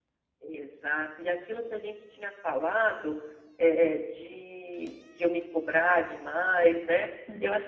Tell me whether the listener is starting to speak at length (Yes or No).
No